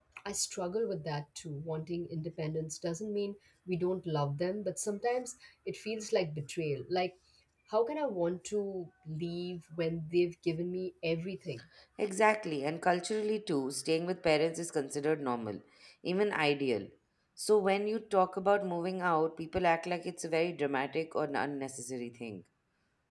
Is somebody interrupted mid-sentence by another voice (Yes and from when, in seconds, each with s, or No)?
No